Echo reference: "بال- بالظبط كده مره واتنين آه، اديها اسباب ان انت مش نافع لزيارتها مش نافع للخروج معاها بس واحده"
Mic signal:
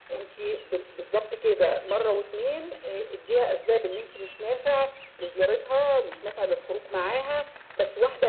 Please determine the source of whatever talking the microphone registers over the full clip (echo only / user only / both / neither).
echo only